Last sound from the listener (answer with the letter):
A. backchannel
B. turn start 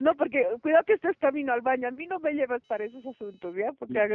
A